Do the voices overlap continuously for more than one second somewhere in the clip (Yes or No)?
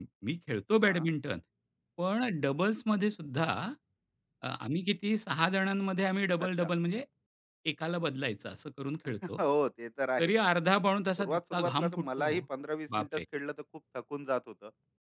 Yes